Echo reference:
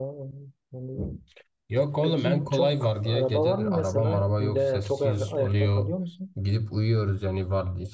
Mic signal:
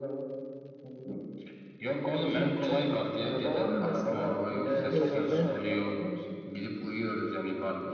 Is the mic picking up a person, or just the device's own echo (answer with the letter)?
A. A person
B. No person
A